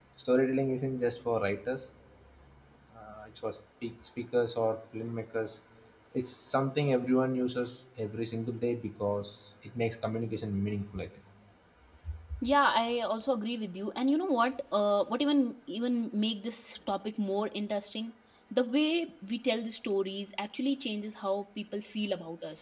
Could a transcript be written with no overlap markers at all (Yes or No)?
Yes